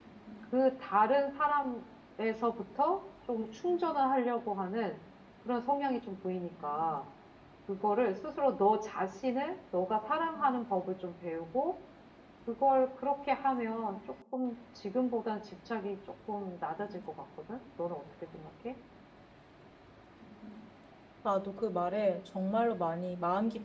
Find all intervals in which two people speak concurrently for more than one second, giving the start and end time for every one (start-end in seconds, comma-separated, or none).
none